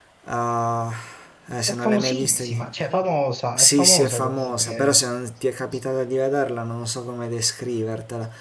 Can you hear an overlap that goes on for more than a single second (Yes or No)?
Yes